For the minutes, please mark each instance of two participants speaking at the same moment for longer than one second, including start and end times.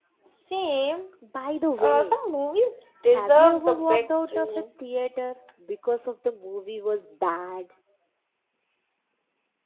3.1-4.5

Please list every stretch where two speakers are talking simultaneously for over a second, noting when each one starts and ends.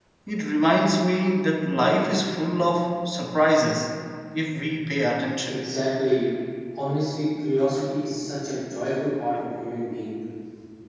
none

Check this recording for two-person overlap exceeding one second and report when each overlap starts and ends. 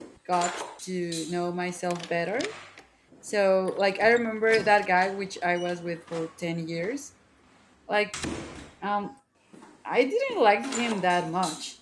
none

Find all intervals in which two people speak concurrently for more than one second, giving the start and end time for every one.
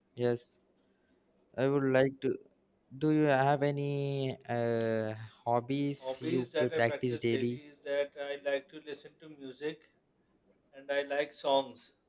6.2-7.6

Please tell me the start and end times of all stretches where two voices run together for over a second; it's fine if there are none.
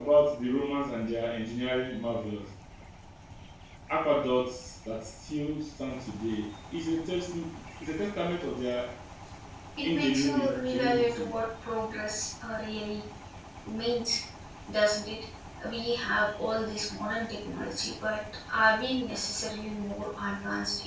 9.8-11.4

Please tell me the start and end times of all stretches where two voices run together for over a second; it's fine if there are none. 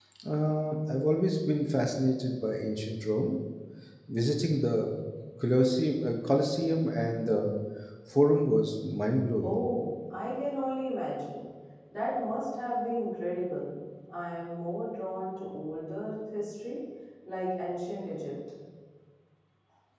none

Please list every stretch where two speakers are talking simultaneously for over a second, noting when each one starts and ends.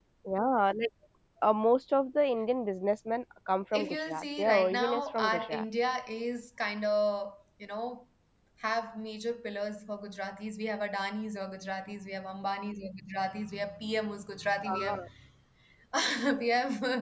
3.7-5.6

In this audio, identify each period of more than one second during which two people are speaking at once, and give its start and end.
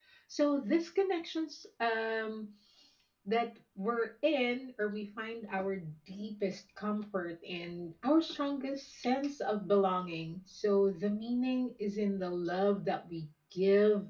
none

